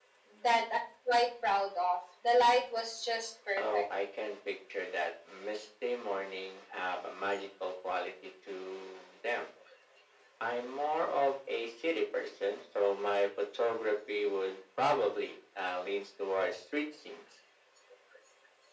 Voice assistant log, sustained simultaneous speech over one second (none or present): none